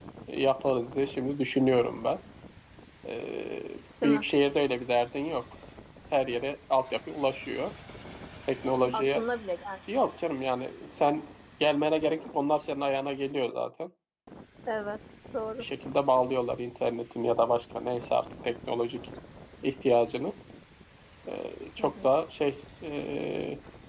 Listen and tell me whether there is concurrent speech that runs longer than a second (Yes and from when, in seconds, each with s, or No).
No